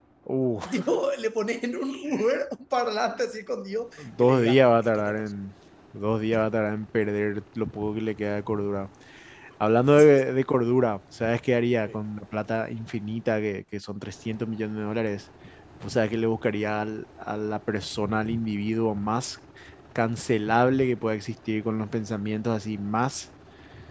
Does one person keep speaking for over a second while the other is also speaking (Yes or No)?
Yes